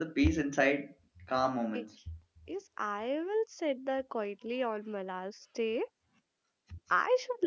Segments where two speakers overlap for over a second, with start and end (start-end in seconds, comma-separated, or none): none